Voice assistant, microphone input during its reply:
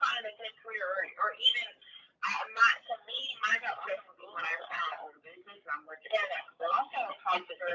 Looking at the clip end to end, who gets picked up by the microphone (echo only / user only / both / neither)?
echo only